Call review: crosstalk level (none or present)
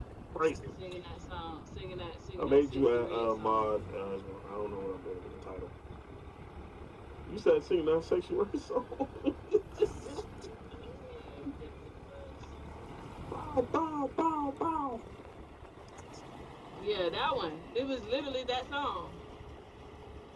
present